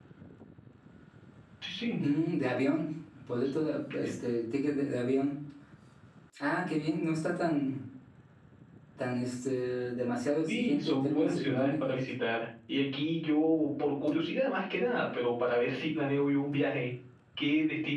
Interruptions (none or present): present